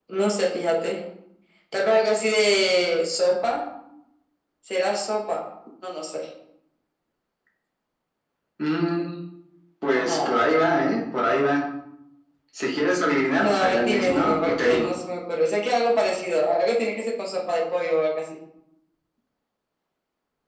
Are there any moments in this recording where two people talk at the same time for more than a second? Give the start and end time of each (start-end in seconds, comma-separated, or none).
13.4-14.9